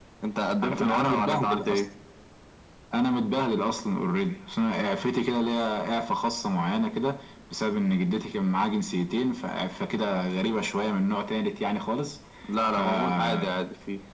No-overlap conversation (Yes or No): No